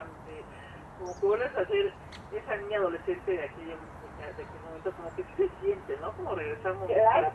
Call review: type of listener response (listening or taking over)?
taking over